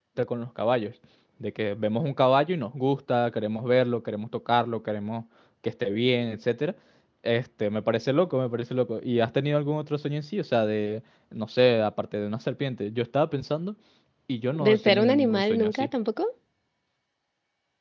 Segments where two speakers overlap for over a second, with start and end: 14.7-15.9

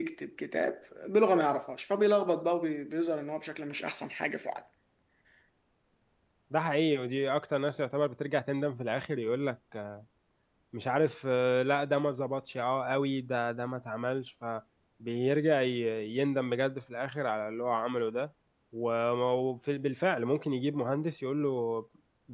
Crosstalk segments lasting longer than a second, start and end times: none

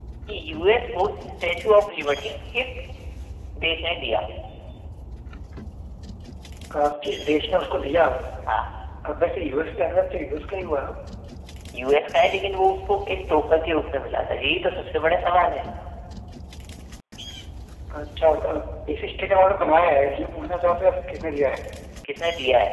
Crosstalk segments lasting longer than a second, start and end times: none

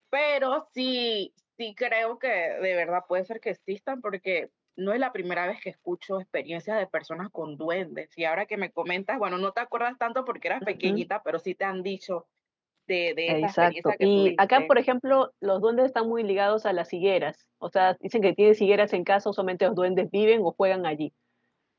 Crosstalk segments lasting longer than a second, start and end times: 13.3-14.7

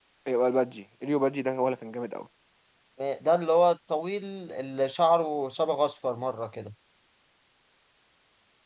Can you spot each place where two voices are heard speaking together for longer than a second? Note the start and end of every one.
none

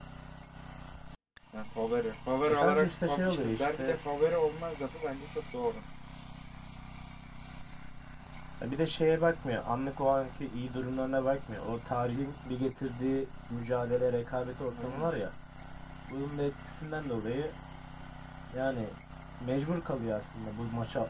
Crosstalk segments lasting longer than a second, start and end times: 2.5-4.0

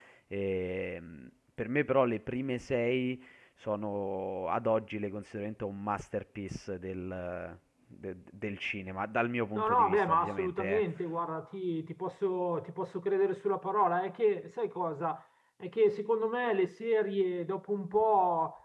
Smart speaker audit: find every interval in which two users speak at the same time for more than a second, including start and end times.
9.6-10.8

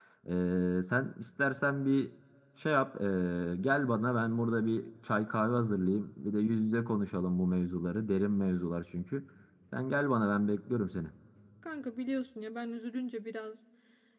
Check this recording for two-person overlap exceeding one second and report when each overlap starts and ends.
none

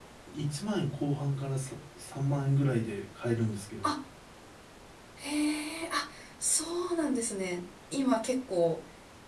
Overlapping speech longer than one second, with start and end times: none

